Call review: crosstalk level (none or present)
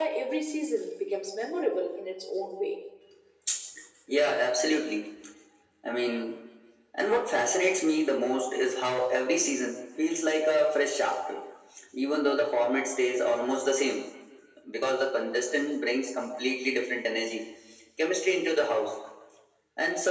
none